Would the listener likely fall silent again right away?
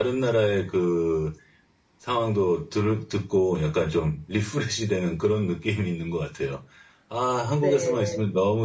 Yes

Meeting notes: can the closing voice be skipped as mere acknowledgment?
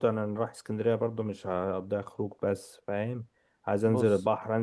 Yes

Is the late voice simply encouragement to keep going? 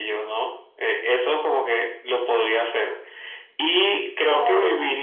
Yes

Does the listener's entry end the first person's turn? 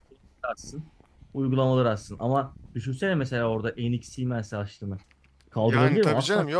Yes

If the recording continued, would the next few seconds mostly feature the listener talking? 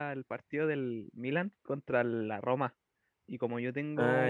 No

